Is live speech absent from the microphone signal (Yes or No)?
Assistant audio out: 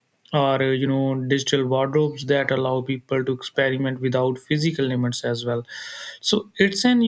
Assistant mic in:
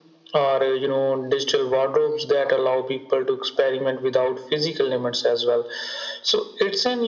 Yes